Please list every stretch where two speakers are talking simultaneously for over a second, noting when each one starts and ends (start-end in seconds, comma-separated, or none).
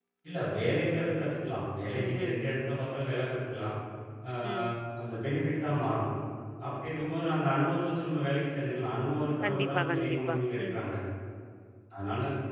9.4-10.8